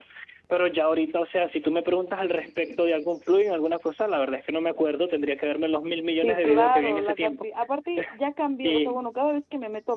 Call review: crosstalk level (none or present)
present